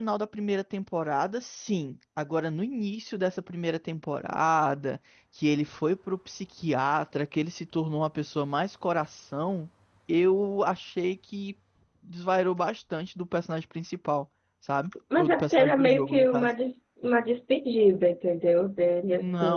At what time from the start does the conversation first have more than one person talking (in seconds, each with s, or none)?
15.2 s